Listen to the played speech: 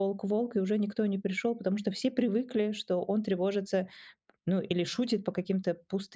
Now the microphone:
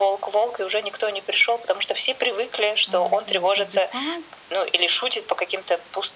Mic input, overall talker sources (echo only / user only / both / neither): both